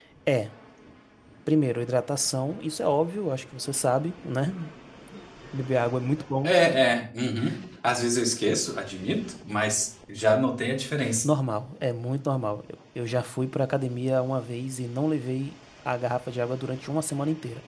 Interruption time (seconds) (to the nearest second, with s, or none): none